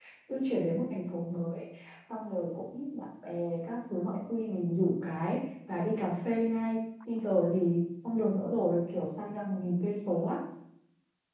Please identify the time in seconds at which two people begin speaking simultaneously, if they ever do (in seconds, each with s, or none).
none